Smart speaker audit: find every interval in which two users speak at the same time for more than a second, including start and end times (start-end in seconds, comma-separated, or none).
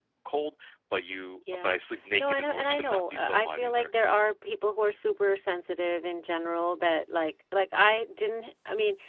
2.2-3.9